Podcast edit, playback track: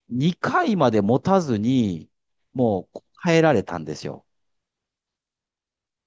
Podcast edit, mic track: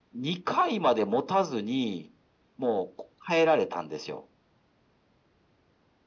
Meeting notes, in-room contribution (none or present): none